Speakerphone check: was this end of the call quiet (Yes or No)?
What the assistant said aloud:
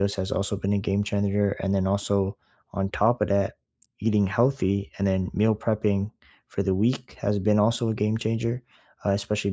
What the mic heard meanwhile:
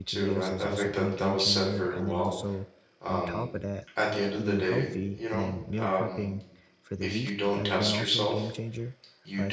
No